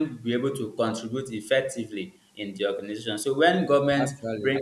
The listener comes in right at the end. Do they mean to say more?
No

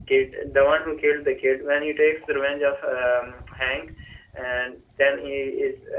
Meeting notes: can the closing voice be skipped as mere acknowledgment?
Yes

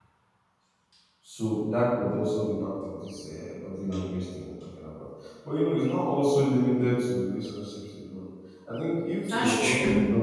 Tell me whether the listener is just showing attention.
Yes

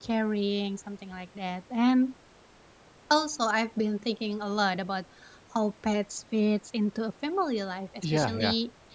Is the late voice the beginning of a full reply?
No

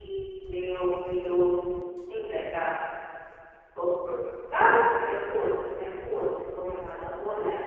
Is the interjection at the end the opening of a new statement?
Yes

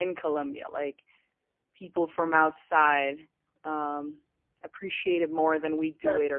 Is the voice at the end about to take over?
No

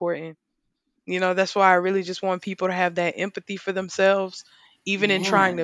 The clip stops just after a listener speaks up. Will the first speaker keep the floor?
Yes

